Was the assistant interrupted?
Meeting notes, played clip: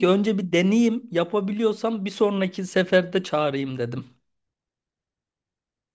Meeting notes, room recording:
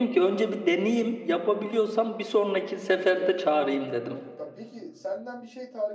Yes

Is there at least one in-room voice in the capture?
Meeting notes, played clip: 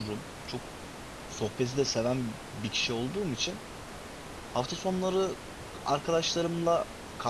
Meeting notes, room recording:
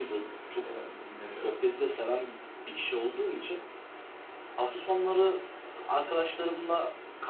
Yes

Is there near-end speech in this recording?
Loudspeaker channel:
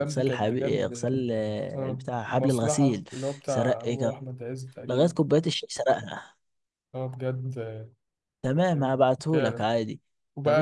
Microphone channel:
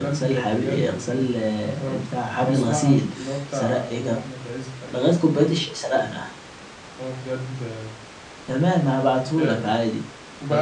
No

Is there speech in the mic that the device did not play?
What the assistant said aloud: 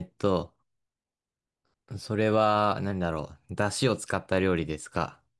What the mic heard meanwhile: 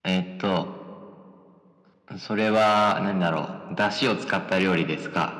No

